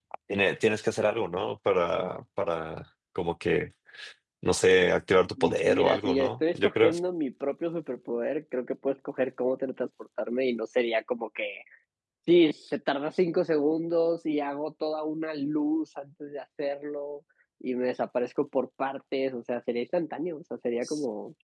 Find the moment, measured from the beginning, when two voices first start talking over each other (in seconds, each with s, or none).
5.4 s